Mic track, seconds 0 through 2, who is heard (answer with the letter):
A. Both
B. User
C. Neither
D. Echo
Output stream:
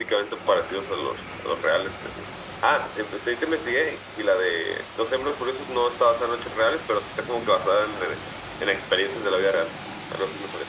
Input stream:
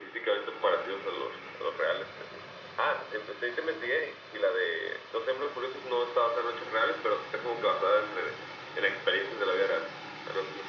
D